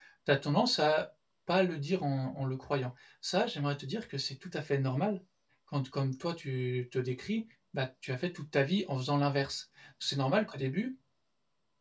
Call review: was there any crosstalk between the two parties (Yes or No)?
No